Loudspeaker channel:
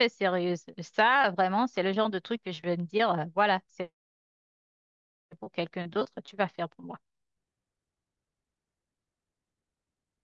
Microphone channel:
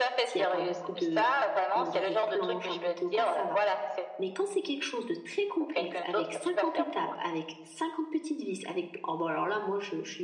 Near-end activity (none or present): present